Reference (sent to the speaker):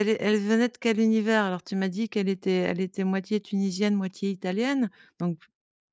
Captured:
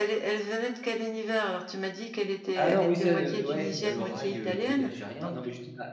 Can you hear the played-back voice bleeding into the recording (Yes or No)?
Yes